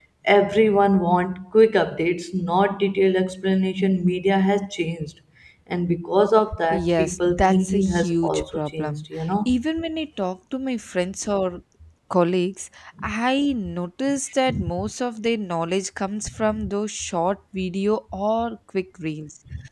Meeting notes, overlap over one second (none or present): present